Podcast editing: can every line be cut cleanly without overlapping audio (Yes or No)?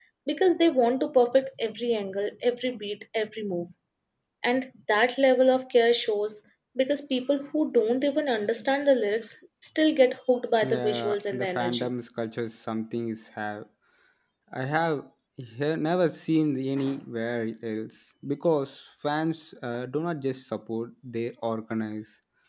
No